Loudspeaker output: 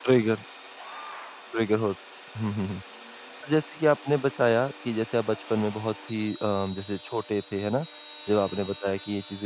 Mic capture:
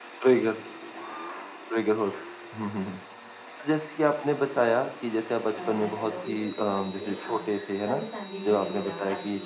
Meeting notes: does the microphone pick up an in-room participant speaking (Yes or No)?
Yes